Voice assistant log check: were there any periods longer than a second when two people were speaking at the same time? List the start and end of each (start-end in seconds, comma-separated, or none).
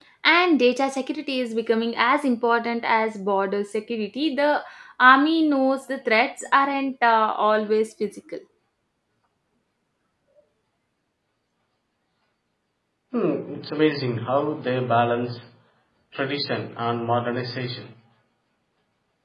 none